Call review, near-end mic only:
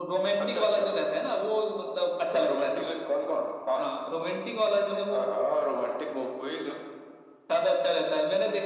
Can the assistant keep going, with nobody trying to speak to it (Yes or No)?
Yes